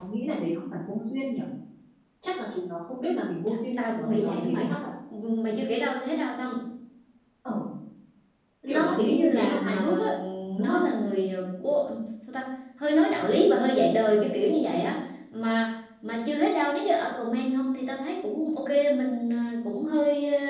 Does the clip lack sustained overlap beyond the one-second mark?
No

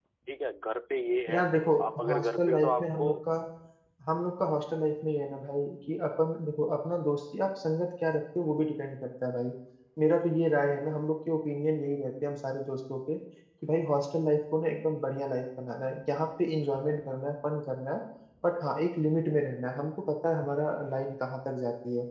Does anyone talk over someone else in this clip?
Yes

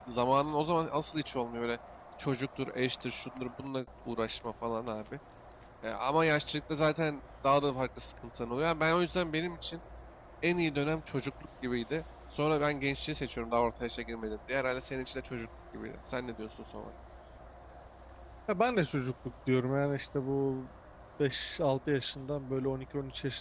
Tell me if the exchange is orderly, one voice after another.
Yes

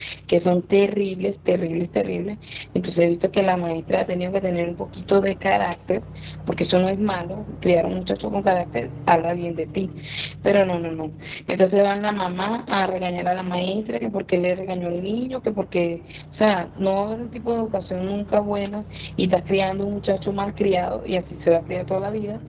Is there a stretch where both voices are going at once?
No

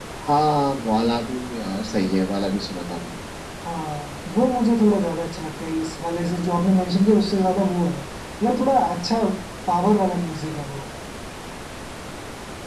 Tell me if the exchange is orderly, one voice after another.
Yes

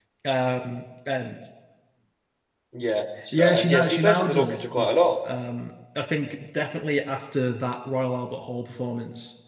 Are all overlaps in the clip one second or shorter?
No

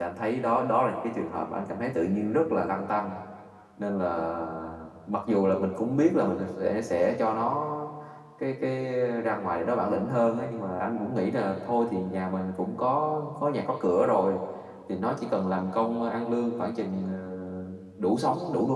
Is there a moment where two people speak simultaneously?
No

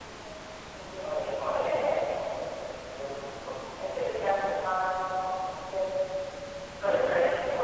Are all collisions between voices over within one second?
No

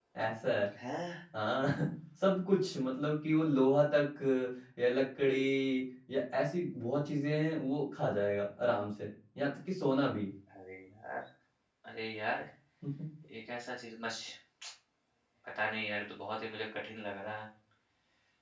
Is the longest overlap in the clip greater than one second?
No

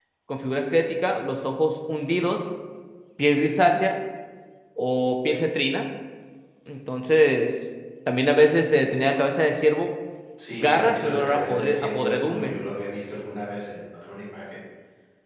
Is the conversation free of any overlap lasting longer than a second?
No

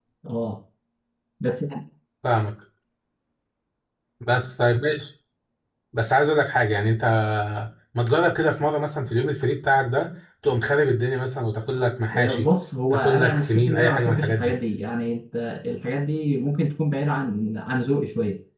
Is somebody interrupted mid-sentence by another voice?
Yes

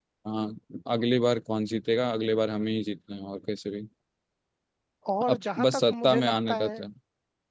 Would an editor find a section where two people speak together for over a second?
Yes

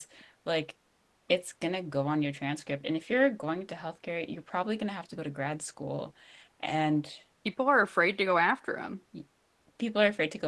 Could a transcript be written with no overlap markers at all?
Yes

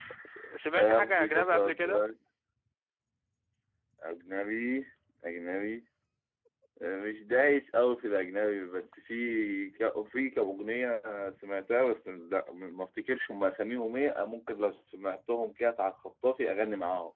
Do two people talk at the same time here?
Yes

